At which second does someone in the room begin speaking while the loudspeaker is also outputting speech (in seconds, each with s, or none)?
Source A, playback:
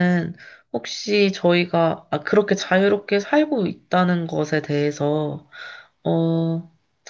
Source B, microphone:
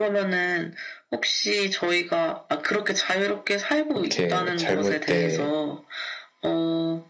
3.9 s